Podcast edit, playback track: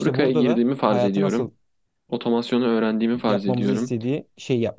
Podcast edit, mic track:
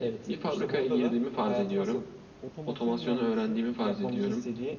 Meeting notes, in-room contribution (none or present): present